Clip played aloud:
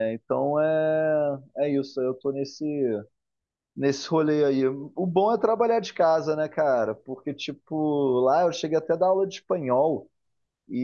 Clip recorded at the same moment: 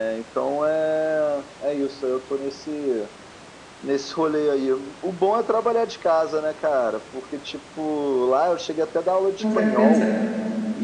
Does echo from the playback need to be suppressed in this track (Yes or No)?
Yes